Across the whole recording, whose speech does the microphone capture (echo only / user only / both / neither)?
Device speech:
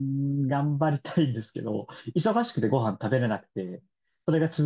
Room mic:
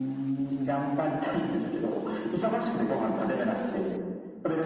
echo only